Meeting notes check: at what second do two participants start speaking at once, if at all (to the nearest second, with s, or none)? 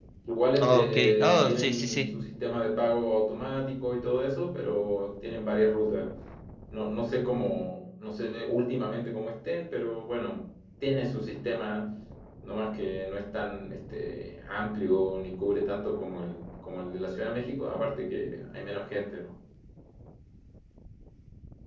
1 s